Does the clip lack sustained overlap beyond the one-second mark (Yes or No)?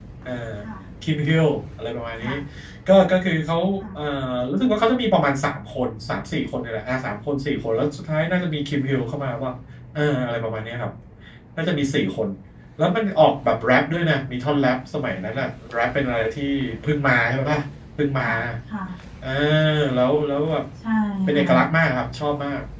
Yes